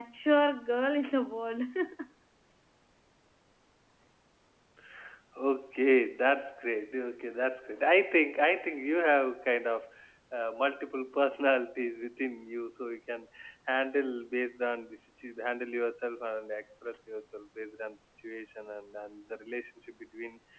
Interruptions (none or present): none